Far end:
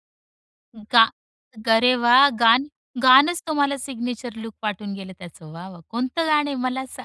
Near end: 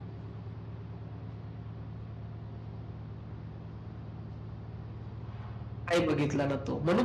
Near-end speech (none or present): present